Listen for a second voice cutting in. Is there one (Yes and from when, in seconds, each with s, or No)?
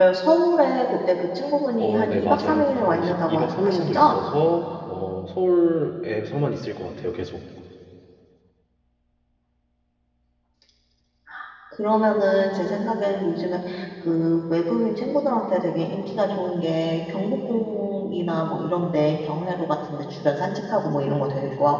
Yes, from 1.8 s